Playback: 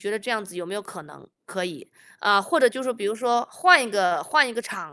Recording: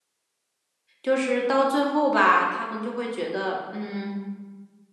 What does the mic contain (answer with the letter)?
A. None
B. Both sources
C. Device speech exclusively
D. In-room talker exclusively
D